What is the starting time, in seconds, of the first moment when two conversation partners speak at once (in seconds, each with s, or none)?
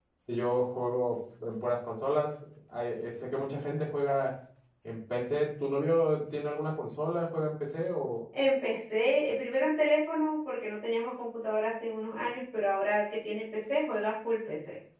none